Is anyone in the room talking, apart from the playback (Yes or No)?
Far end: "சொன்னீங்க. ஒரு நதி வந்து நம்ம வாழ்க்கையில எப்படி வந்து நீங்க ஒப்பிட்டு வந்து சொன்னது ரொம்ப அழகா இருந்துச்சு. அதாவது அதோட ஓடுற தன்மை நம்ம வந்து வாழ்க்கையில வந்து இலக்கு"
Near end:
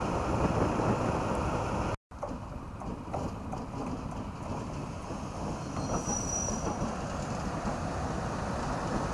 No